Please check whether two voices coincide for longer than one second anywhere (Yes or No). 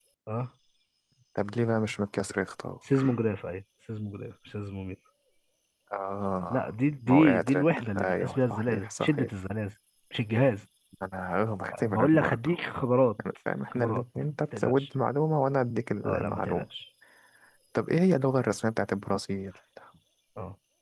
Yes